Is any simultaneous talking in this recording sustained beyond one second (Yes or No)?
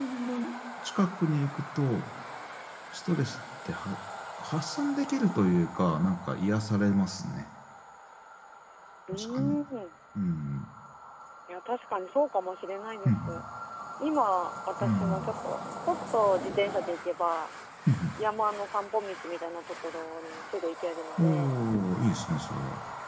No